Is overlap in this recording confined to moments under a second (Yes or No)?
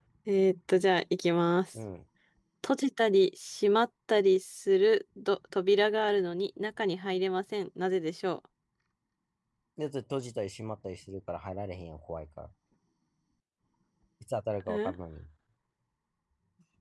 Yes